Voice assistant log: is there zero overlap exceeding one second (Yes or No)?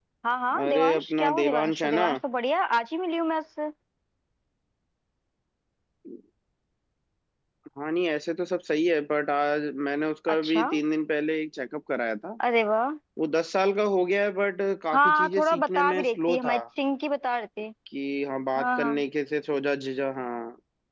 No